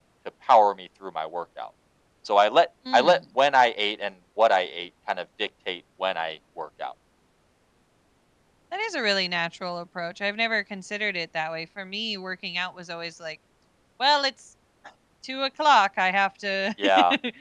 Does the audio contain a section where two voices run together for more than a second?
No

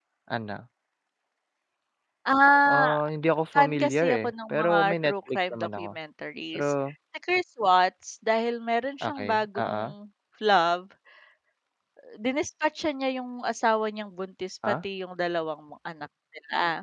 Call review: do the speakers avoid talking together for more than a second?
No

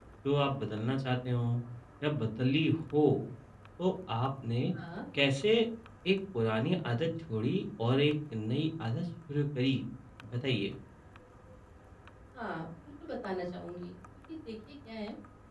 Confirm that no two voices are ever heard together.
Yes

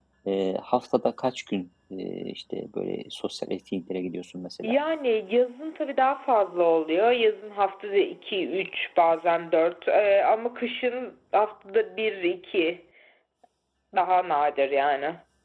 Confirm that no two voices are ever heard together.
Yes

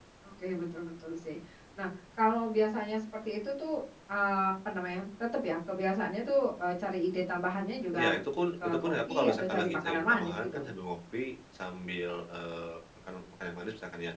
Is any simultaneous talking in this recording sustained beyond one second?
Yes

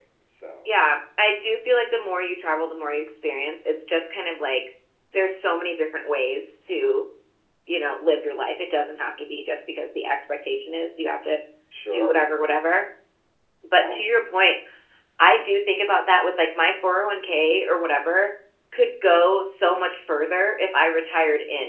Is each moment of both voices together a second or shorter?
Yes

